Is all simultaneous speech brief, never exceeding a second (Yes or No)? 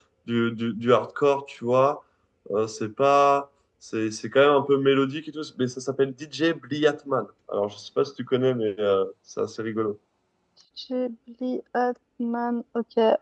Yes